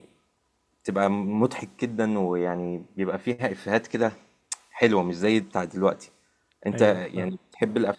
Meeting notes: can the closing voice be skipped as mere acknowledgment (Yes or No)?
Yes